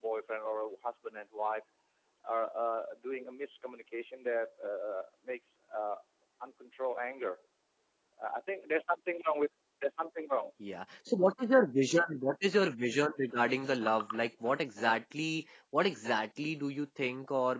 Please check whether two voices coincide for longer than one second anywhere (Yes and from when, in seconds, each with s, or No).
No